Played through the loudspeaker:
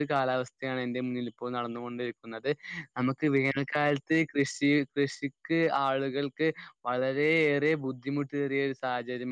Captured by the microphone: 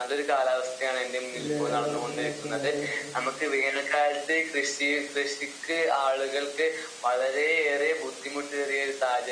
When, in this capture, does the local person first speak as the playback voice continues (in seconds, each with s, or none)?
1.4 s